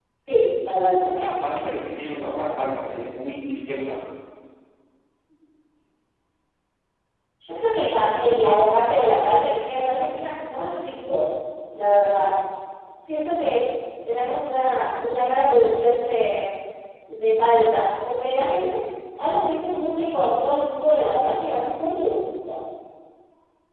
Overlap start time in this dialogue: none

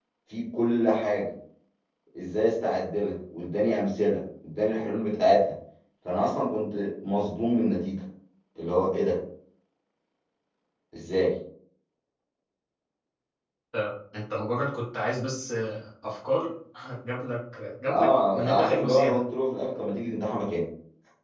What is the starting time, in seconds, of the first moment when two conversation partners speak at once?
18 s

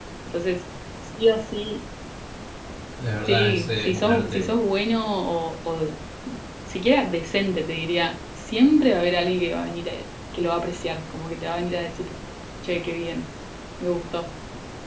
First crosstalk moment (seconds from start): 3 s

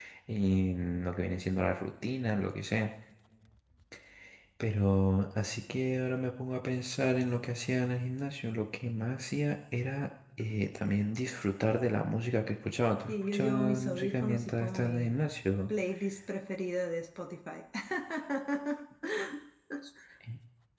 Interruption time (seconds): 13 s

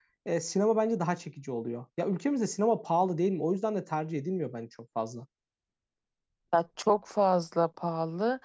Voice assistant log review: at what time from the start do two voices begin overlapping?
none

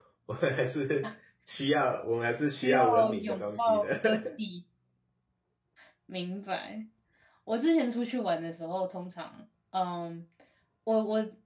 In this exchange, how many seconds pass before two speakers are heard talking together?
3 s

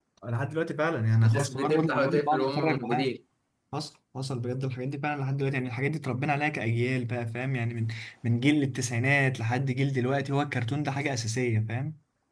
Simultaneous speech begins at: 1 s

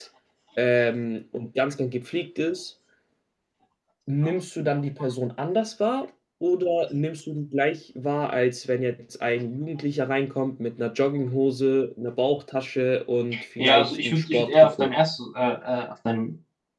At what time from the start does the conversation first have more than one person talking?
14 s

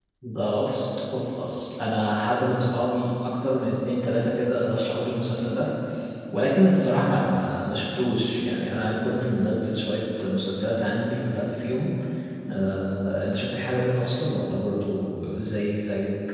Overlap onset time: none

